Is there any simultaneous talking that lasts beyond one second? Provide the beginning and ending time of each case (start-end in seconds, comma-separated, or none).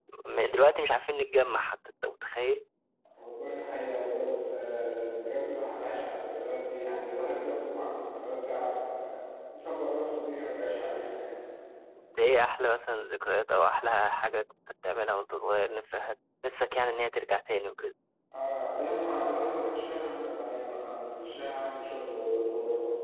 none